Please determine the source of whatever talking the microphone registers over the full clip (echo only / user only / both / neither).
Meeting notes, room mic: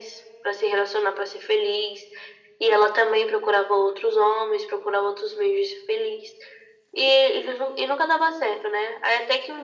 echo only